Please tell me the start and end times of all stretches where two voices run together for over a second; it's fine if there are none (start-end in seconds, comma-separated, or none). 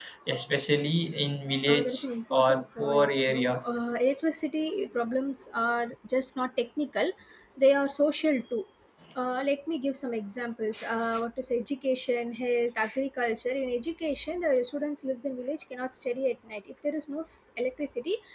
1.7-3.6